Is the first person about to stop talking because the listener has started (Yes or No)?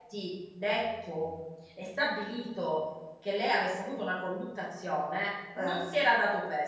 No